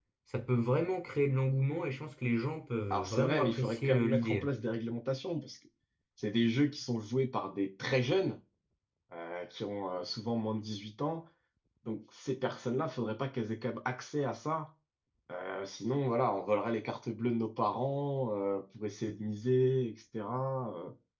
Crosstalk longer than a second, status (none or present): present